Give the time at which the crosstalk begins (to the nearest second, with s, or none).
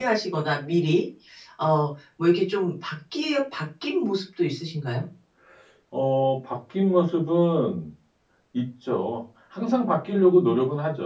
none